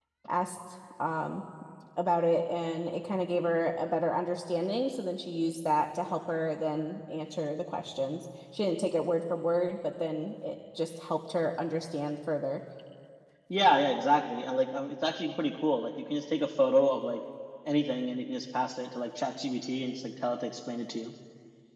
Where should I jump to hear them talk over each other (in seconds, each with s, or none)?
none